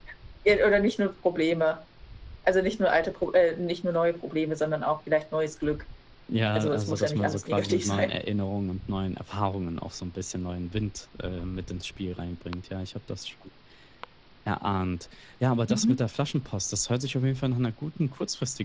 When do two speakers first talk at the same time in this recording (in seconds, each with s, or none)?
6.6 s